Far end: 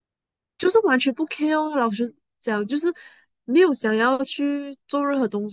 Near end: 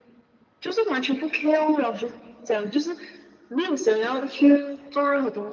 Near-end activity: none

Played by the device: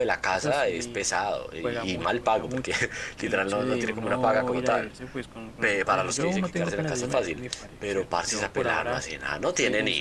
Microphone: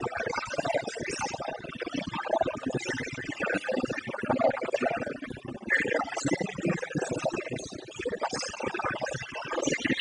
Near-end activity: none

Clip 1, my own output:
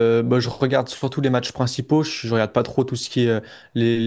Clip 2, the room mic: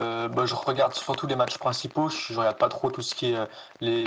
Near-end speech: none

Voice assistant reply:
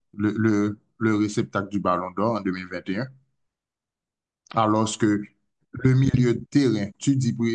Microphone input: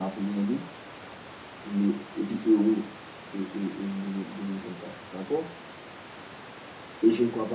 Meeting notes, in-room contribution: present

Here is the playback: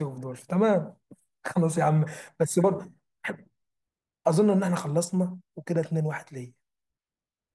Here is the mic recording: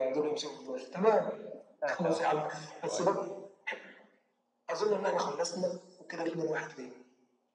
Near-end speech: present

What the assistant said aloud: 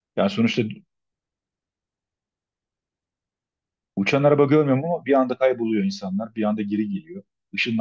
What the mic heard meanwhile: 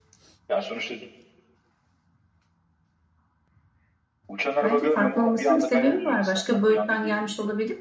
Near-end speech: present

